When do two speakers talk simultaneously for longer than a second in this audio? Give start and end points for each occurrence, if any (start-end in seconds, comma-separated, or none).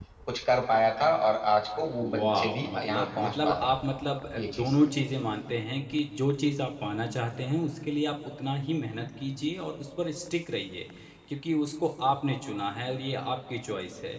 2.0-3.7